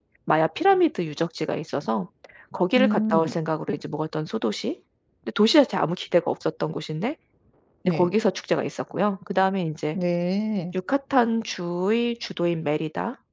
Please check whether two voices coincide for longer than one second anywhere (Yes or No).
No